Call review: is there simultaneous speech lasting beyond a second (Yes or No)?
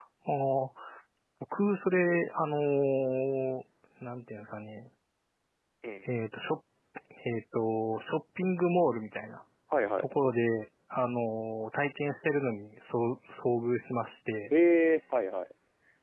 No